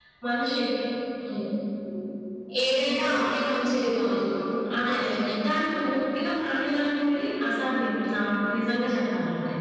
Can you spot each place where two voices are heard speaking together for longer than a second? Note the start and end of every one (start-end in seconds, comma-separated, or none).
none